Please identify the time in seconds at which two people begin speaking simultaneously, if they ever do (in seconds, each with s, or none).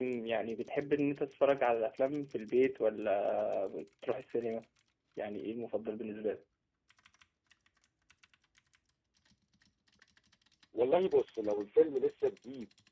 none